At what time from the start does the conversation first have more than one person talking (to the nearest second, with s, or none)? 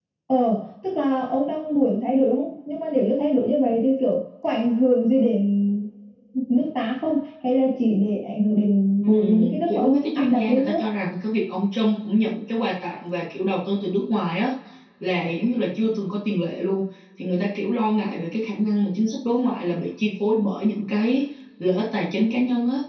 9 s